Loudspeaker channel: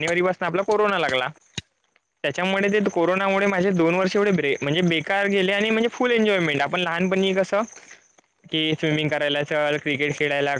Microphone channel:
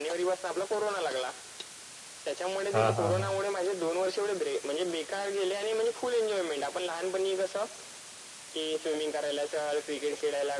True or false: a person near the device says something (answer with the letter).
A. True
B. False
A